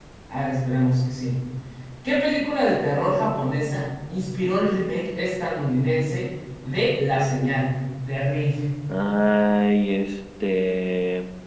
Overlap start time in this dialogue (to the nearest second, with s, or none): none